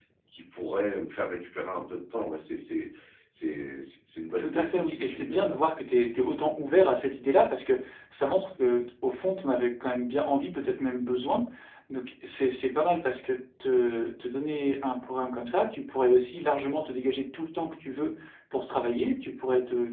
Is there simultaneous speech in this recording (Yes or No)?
Yes